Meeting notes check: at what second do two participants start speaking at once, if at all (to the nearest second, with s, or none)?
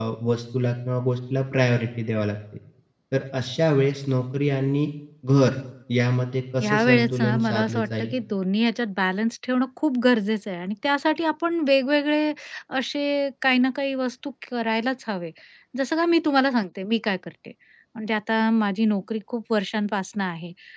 7 s